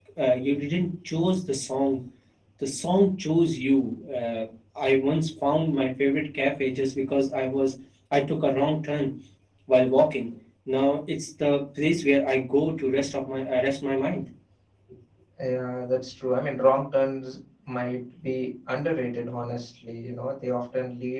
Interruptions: none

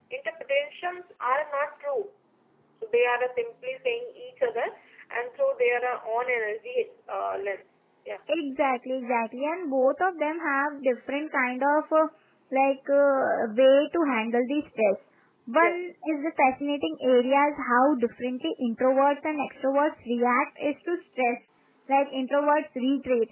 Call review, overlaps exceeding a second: none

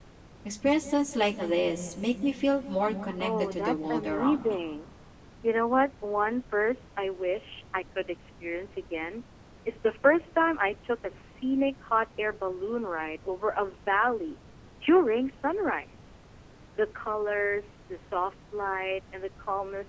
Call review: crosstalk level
present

